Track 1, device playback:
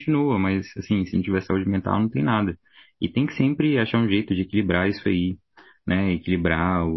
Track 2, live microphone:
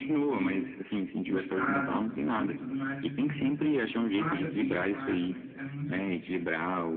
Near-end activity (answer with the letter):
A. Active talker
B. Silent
A